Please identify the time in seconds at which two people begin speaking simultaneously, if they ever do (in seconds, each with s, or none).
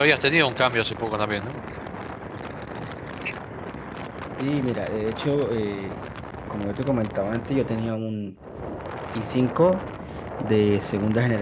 none